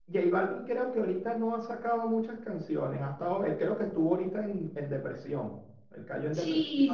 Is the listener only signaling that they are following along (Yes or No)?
No